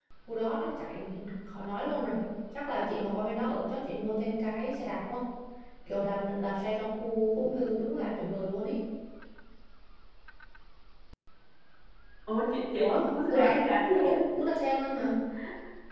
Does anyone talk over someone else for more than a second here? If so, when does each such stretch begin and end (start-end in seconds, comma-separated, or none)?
12.8-14.2